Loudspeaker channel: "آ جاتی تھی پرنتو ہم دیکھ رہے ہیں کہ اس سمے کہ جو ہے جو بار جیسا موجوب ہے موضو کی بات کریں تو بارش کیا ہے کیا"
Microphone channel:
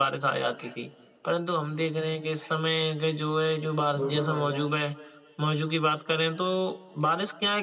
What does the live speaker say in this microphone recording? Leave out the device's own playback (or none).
بالکل بھائی جان